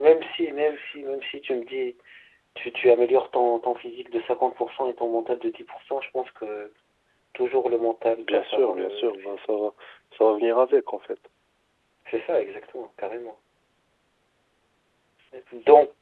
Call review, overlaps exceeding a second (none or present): present